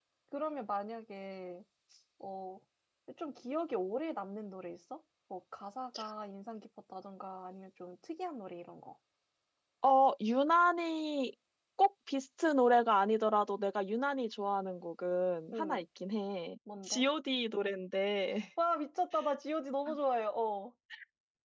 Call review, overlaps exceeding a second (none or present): none